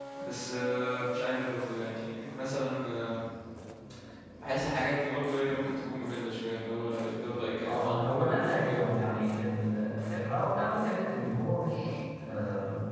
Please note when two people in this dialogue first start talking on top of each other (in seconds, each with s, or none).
7.6 s